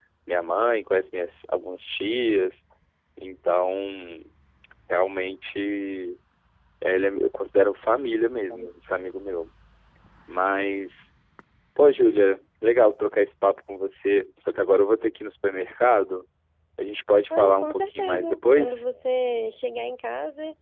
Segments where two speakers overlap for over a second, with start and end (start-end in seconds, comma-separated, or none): 17.4-18.8